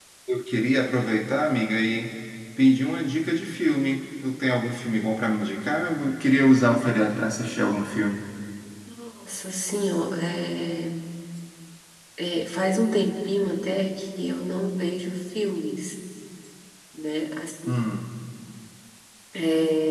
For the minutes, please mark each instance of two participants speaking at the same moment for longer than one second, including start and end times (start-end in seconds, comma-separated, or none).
none